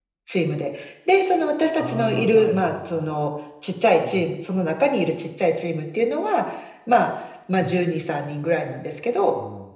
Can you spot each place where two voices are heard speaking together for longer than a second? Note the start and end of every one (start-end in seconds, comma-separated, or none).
1.7-3.1